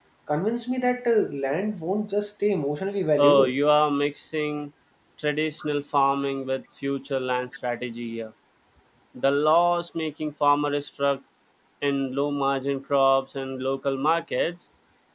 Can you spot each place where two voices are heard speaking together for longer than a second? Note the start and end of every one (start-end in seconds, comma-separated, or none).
none